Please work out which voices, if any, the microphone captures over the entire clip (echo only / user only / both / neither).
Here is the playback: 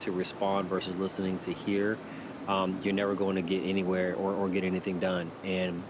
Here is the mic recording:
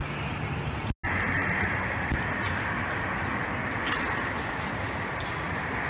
neither